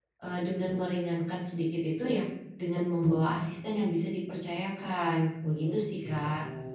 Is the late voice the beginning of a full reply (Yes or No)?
Yes